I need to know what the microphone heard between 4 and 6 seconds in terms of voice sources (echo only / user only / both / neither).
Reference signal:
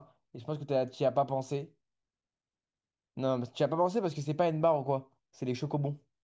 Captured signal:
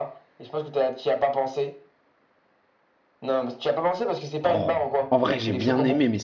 both